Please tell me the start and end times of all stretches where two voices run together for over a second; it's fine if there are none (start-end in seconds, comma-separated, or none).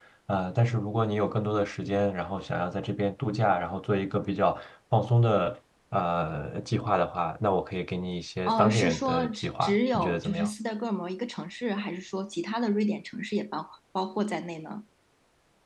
8.5-10.5